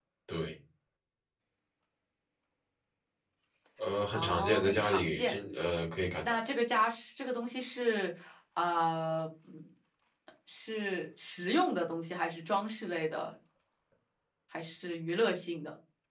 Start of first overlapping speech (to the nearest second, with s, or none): 4 s